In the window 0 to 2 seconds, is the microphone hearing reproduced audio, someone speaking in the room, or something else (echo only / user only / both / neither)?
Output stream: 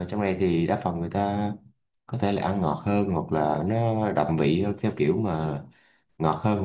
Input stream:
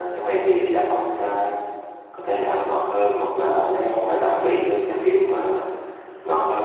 echo only